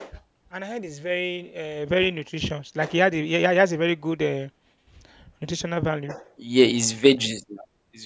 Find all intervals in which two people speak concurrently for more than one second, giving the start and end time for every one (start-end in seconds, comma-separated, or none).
none